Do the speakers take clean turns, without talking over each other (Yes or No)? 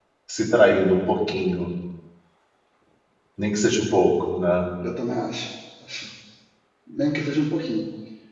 Yes